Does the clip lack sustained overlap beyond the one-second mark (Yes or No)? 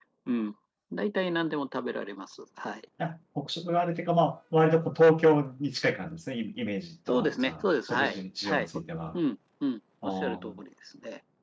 No